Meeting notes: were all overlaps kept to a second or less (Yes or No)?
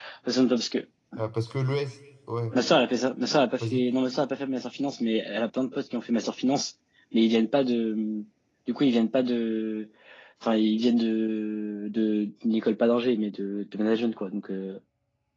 Yes